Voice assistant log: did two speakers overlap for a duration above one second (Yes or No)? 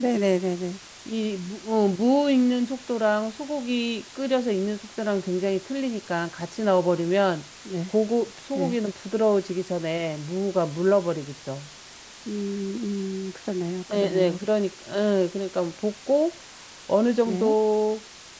No